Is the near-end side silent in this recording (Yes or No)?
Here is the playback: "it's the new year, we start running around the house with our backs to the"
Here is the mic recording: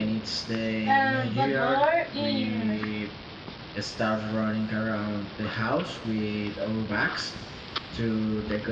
No